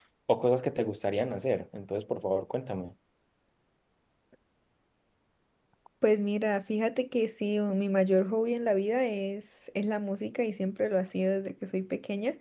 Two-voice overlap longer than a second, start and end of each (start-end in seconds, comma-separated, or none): none